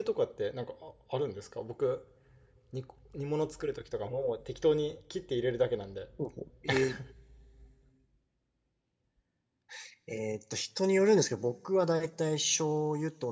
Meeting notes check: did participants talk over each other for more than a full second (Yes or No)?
No